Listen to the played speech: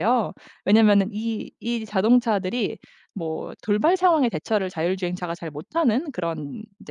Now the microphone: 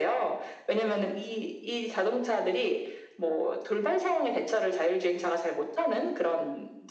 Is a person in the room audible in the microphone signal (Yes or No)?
No